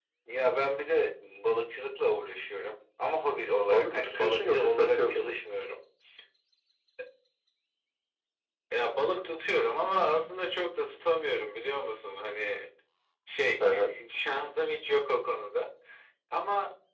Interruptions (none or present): present